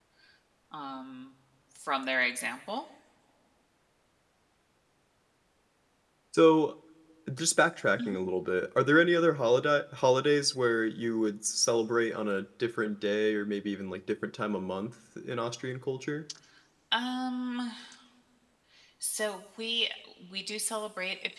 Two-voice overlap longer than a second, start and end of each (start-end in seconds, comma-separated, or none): none